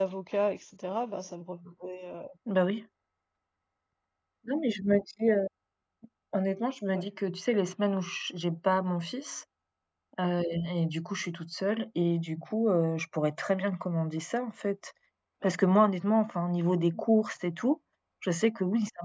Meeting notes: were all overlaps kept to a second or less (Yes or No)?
Yes